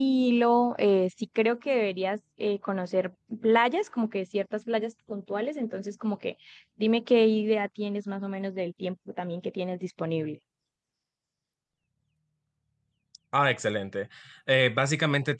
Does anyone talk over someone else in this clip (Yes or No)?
No